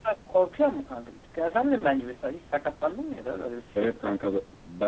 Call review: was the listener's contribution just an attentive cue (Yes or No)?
No